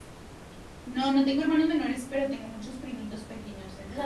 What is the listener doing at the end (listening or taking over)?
taking over